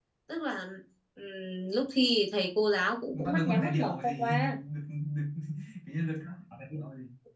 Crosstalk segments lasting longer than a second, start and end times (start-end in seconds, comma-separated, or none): 3.1-4.6